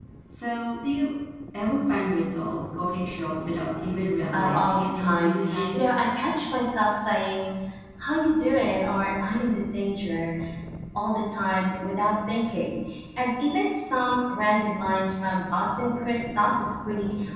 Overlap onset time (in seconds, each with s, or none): 4.3 s